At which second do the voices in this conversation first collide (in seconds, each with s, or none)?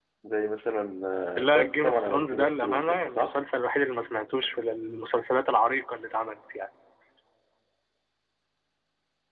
1.4 s